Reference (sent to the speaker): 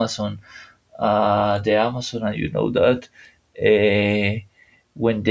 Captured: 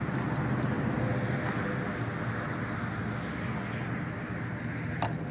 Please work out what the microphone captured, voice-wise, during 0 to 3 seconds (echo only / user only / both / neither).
neither